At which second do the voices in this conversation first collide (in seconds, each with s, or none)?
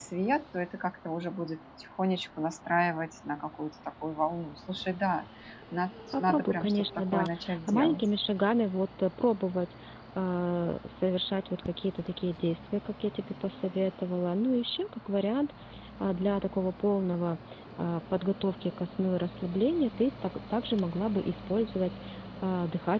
6.1 s